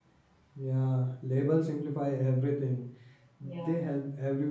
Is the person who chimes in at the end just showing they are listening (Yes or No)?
Yes